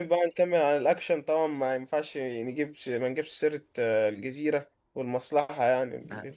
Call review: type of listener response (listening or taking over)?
taking over